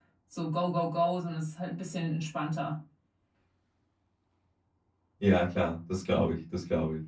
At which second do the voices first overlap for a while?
none

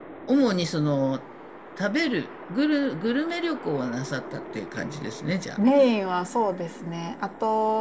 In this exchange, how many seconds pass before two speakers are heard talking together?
none

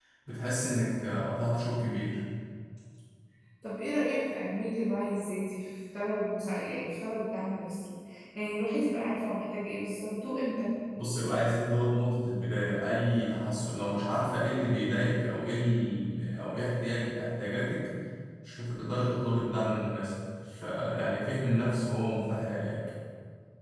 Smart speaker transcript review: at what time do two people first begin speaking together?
none

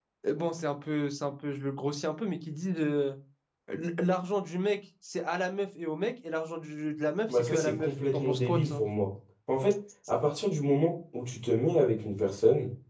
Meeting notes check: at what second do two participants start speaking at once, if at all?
7.3 s

